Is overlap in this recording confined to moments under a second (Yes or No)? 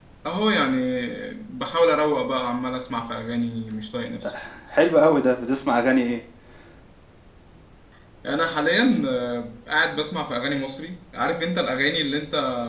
Yes